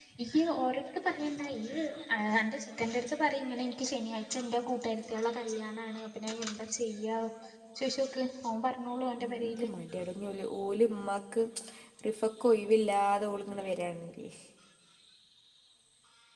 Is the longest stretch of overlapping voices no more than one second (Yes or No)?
Yes